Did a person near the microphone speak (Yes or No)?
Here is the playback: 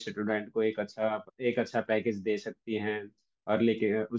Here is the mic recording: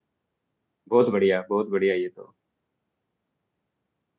Yes